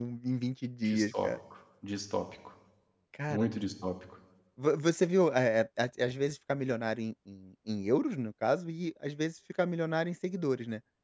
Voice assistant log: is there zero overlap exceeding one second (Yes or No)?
Yes